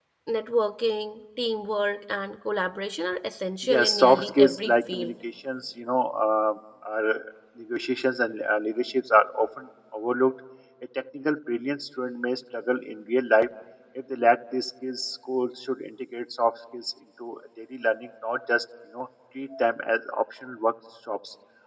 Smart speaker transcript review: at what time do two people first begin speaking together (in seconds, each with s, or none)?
3.6 s